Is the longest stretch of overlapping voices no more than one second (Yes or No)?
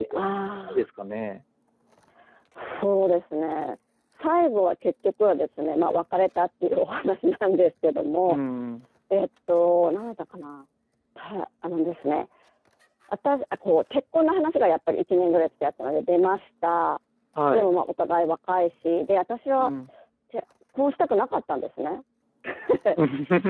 Yes